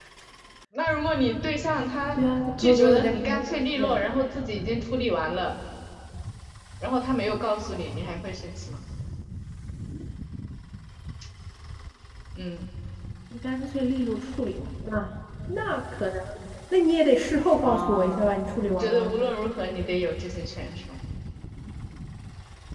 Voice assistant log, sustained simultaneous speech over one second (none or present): present